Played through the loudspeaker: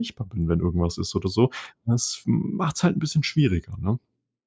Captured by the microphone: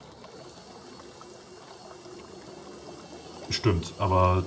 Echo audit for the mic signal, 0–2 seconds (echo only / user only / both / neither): neither